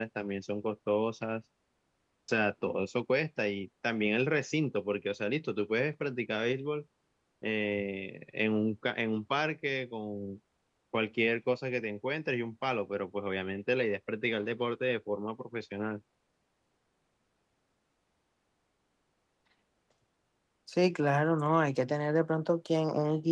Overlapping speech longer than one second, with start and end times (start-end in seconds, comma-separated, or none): none